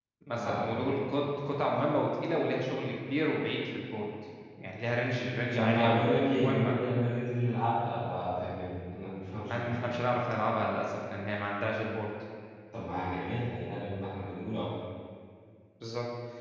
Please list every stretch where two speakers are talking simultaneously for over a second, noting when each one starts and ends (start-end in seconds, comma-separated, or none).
5.5-6.8